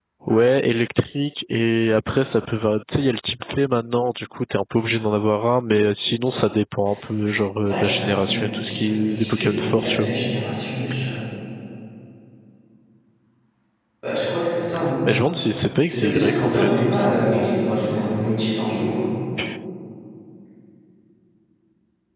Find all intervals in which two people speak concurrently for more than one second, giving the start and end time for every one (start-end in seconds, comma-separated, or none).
7.6-10.1, 15.9-17.5